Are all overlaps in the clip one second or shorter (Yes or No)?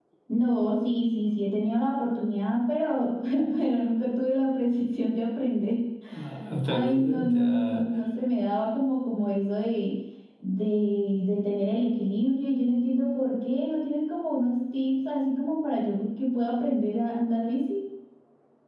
No